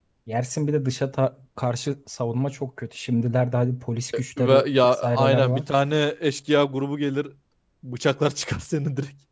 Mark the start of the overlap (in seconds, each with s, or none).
4.4 s